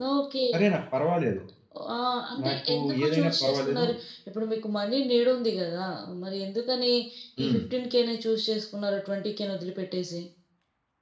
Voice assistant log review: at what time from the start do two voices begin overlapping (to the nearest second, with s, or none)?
2 s